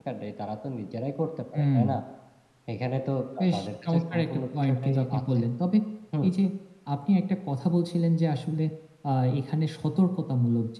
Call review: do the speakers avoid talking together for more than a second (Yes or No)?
No